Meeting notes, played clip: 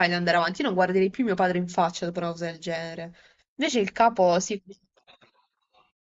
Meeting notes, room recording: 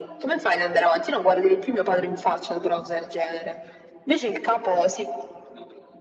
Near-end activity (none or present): none